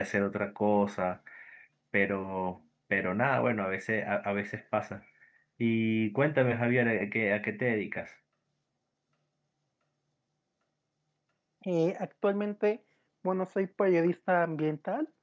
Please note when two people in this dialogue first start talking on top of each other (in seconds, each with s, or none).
none